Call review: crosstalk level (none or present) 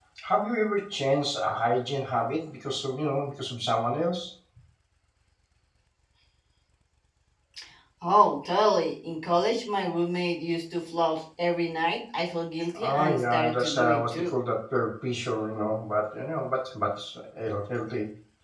present